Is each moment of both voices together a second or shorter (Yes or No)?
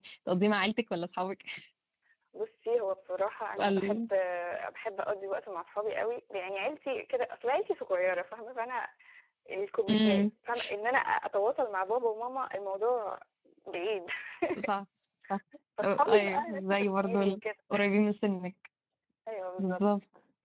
No